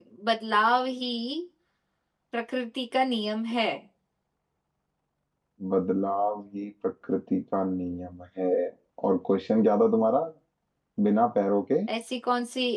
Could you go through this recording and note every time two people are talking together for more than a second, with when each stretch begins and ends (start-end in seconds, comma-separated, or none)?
none